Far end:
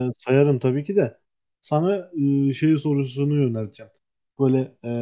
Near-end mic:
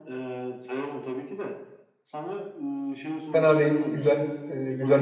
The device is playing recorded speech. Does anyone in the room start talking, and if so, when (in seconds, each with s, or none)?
3.3 s